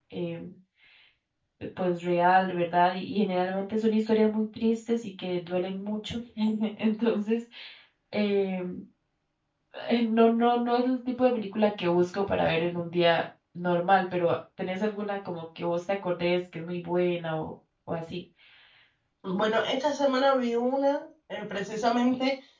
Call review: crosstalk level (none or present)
none